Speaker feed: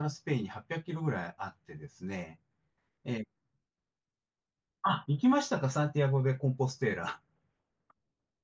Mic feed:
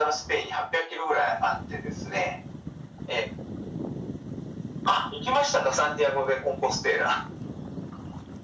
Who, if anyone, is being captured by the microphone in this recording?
echo only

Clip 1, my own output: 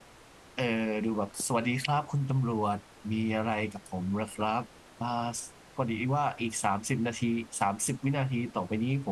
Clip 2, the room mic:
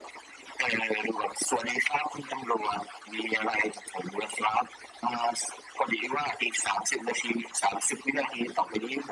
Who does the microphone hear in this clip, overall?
echo only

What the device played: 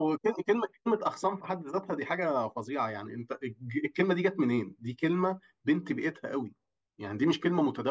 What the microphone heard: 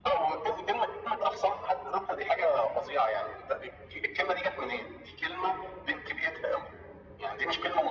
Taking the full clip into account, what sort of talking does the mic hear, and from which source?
echo only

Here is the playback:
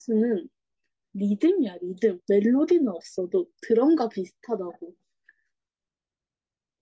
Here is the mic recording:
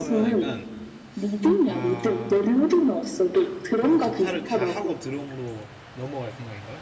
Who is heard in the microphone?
both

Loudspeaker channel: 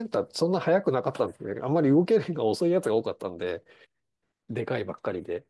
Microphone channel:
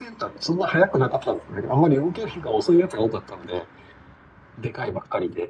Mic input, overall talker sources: echo only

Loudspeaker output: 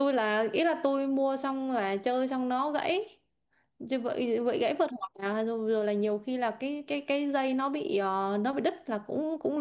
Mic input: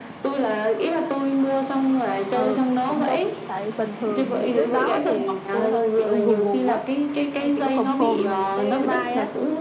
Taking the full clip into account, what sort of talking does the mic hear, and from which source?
both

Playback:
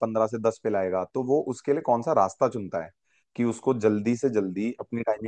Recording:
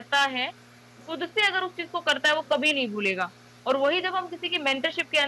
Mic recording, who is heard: user only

